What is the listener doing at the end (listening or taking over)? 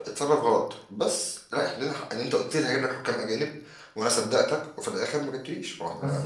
taking over